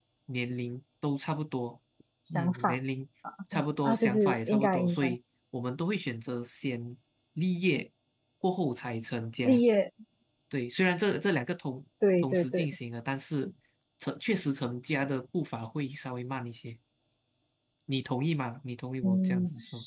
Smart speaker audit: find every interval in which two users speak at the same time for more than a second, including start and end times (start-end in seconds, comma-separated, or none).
3.8-5.2